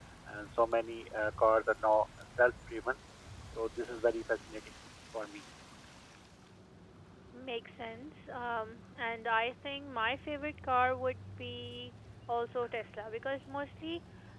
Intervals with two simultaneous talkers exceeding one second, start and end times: none

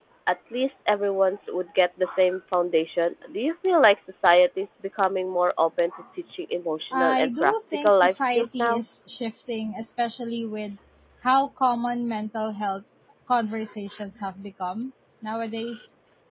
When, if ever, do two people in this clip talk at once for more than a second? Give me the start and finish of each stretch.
6.9-8.8

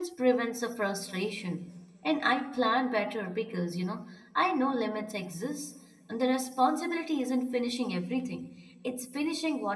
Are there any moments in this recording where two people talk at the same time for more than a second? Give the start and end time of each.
none

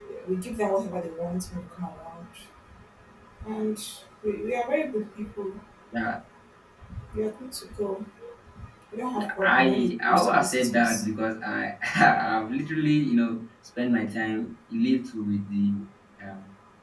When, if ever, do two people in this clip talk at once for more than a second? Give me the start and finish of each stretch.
9.2-11.1

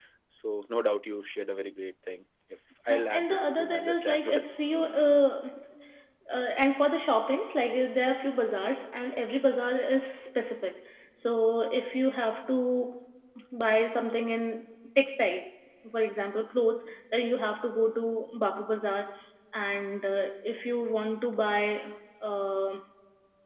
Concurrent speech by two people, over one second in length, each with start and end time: 2.9-4.4

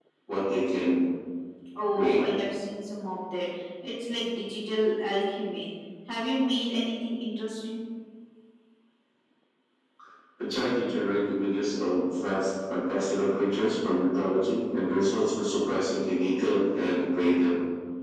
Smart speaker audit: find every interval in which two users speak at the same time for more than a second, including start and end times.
none

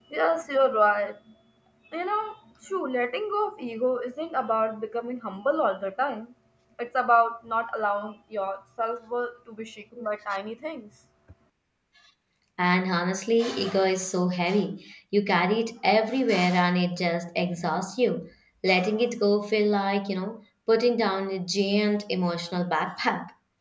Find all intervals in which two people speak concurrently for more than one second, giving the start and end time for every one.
none

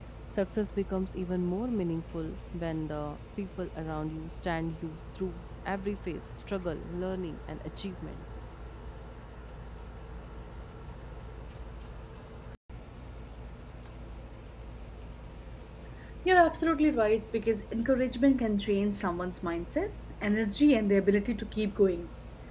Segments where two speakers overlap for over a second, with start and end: none

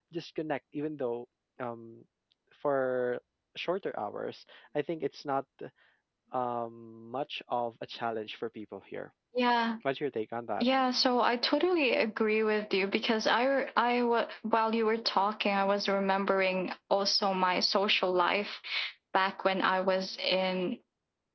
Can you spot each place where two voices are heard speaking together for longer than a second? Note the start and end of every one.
none

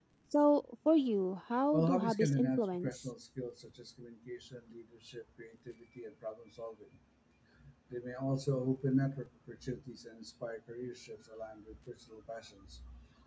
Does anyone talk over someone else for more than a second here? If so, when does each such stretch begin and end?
1.7-3.0

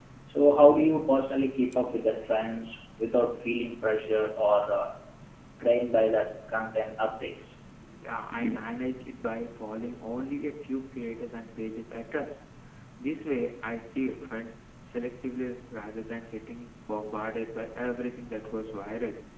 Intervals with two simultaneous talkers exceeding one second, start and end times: none

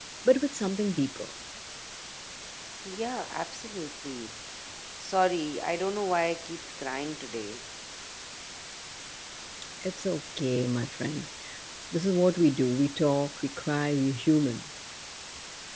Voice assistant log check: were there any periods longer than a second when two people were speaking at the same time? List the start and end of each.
none

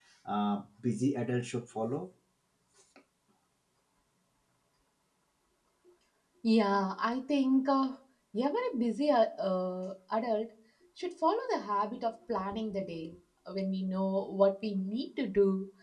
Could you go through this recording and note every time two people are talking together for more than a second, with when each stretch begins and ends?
none

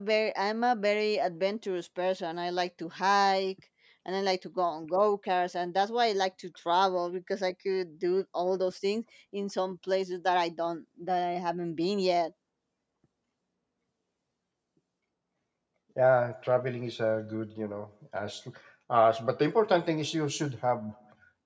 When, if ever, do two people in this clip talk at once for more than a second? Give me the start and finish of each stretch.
none

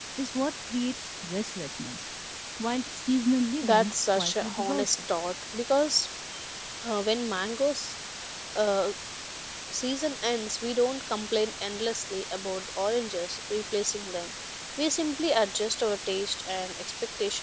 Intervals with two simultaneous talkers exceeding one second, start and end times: 3.6-5.0

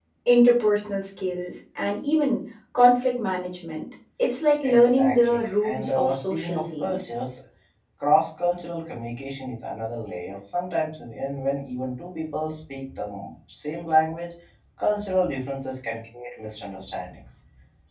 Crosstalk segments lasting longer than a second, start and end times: 4.6-7.0

